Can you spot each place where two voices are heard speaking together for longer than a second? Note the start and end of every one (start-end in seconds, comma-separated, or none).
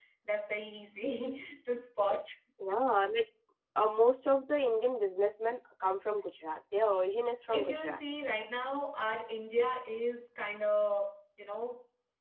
none